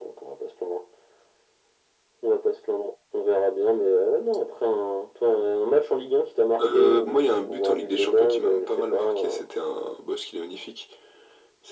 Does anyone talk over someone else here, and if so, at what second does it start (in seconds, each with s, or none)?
6.6 s